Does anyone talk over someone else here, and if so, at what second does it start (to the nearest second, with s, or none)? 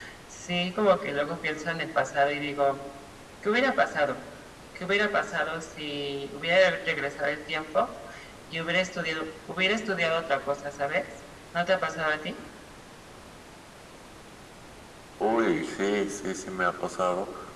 none